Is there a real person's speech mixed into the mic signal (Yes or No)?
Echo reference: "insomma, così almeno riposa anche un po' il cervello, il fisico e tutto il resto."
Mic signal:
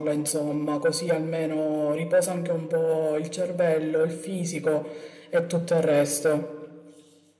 No